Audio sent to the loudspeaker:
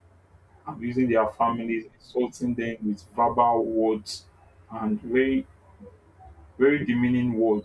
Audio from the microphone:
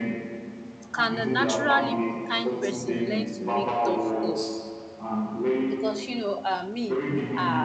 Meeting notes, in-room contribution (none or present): present